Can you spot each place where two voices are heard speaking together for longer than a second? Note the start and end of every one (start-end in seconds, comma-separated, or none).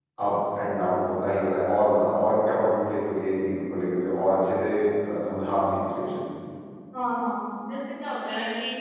none